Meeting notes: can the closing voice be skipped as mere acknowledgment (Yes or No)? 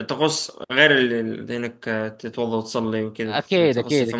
No